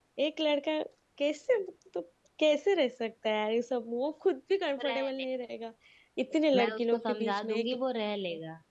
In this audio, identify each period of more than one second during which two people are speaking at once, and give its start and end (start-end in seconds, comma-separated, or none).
6.5-7.7